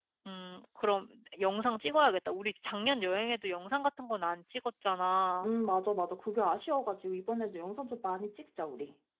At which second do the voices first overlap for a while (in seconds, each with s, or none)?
none